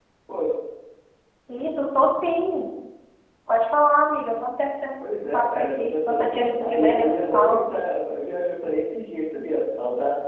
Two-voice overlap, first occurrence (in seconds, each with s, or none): 5.2 s